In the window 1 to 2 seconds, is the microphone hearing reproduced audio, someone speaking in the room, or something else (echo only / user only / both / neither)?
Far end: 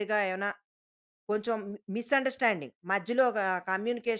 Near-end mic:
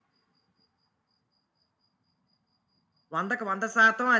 neither